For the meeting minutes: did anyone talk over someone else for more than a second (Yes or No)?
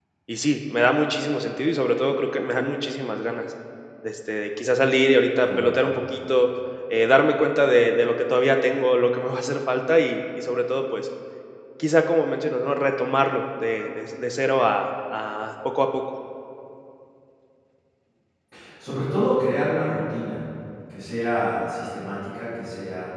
No